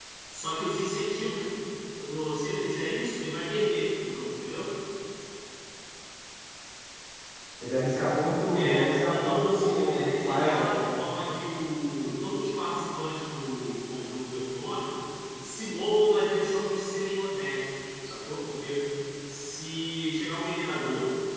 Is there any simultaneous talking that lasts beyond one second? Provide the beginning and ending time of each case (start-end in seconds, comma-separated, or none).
8.5-10.8